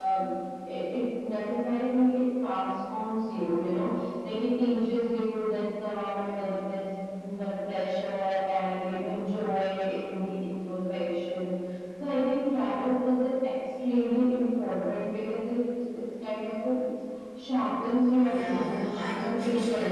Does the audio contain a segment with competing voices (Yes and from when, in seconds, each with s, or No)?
Yes, from 18.2 s